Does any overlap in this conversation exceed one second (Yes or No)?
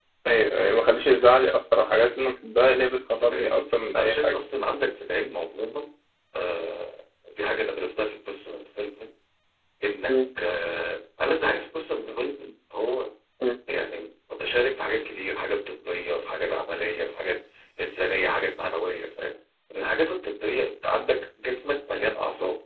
Yes